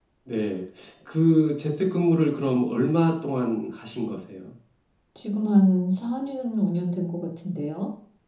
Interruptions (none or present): none